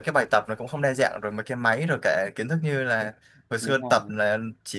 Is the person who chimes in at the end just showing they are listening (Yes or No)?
Yes